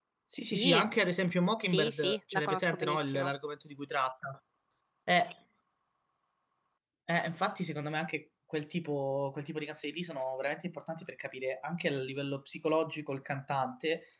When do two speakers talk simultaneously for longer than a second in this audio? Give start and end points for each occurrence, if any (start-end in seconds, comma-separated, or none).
1.6-3.3